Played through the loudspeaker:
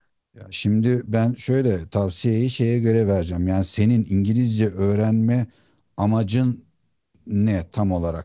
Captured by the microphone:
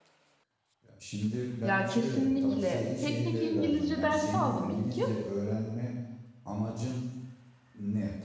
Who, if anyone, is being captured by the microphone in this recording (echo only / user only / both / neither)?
both